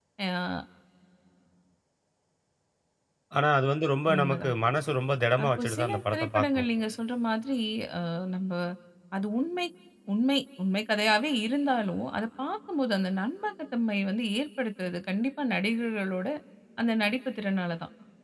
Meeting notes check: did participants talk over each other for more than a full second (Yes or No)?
Yes